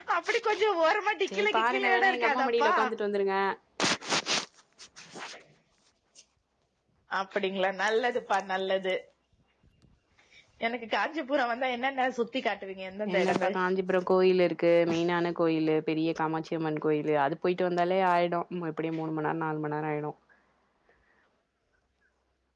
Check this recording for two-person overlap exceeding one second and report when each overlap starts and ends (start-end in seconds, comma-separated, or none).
1.3-2.7